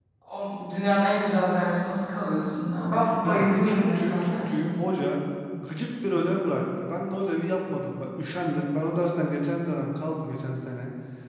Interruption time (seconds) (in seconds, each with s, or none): 3.2 s